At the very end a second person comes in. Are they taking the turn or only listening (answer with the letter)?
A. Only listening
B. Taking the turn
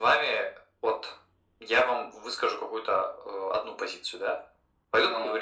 A